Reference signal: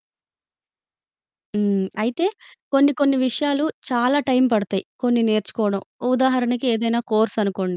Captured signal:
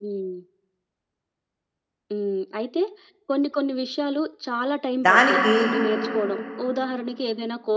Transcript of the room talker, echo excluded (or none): దానికి